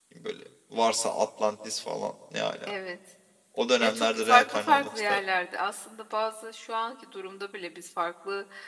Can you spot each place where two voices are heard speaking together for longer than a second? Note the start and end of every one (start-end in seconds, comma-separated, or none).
3.8-5.2